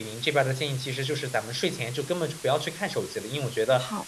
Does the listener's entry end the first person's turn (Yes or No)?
No